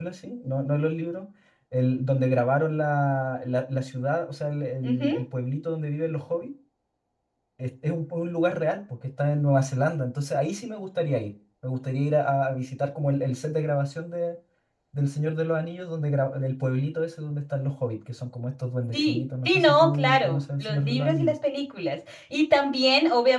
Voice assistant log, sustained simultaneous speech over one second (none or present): present